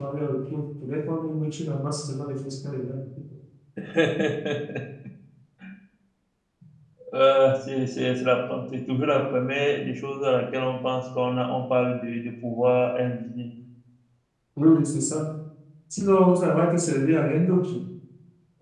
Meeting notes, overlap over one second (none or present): none